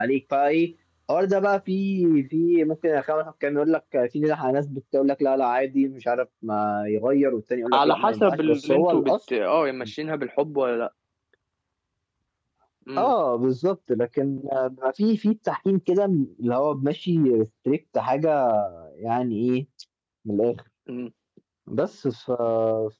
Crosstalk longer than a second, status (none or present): present